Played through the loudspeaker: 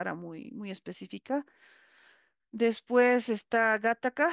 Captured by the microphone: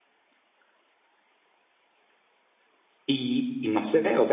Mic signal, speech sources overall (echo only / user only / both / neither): user only